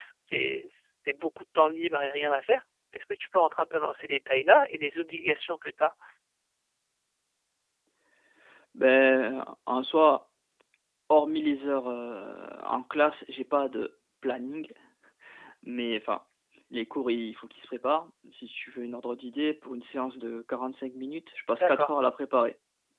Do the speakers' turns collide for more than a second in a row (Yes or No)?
No